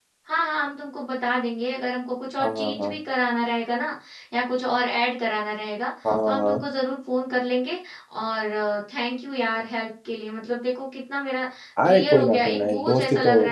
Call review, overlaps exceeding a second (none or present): present